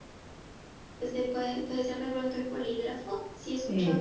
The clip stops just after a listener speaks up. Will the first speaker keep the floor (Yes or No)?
Yes